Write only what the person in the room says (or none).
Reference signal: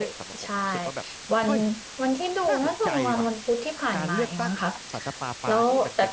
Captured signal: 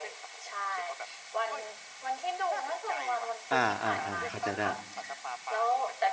อ่า อ่า อ่า เข้าใจได้